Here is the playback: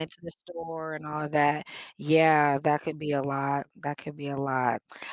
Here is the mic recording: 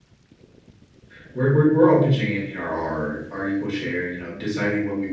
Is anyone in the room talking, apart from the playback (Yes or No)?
Yes